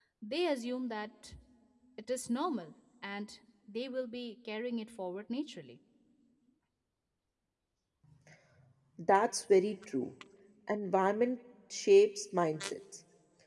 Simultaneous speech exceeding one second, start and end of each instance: none

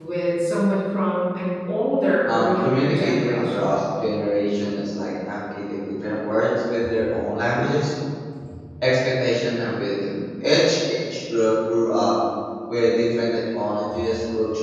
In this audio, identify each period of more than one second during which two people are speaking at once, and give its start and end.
2.3-3.8

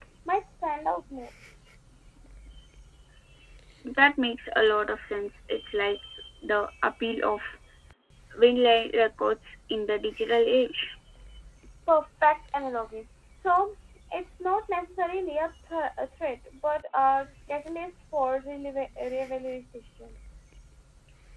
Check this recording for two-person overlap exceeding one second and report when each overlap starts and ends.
none

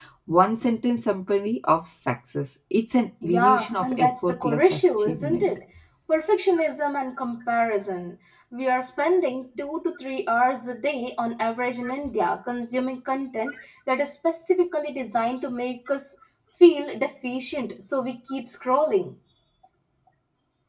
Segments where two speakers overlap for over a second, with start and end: 3.2-5.5

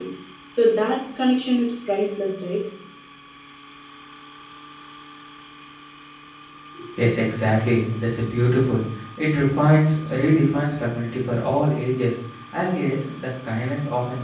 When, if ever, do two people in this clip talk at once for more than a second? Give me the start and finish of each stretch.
none

